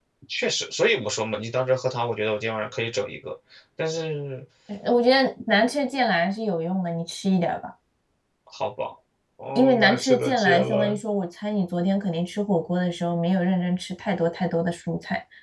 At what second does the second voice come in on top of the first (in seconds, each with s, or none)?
9.6 s